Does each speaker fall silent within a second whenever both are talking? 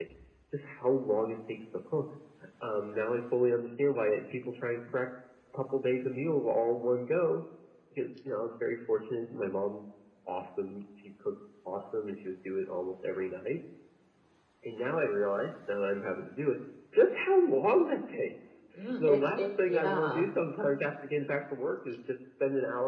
No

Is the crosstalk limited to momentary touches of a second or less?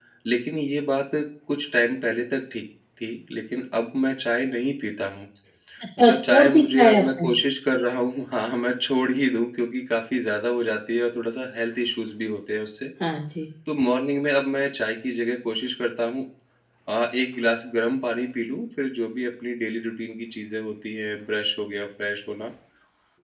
No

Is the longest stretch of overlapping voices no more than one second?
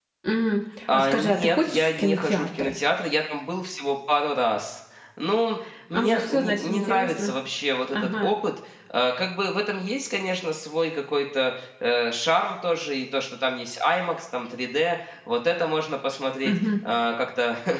No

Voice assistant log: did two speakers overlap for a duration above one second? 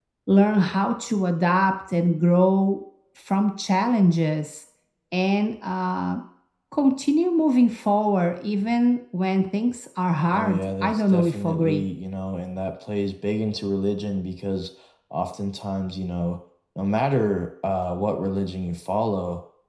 Yes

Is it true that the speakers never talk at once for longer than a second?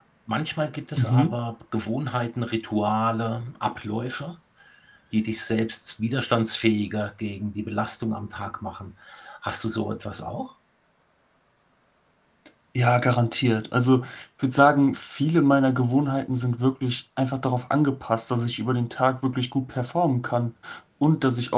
Yes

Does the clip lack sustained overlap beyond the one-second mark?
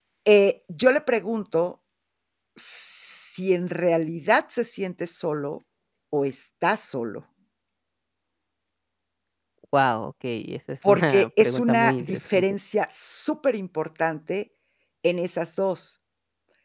No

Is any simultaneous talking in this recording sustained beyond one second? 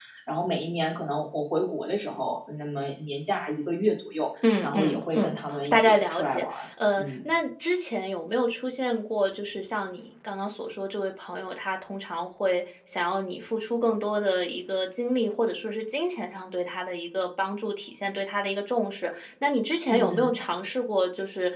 Yes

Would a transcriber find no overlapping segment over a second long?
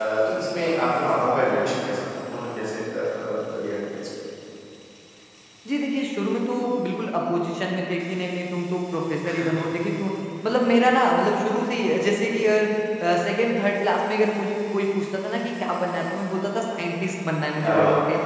Yes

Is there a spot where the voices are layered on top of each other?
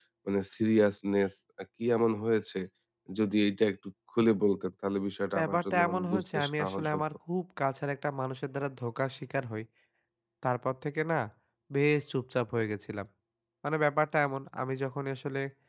Yes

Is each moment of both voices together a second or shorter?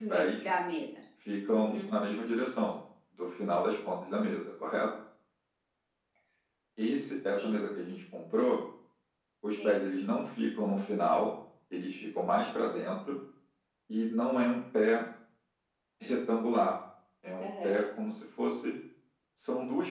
Yes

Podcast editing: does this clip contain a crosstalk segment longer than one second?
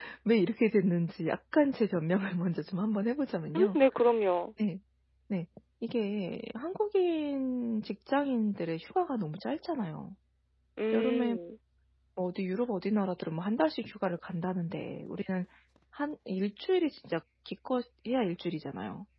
No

